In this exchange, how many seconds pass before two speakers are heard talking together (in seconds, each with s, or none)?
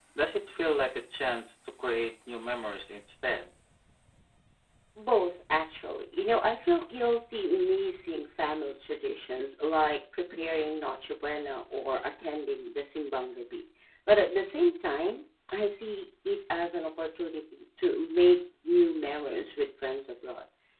none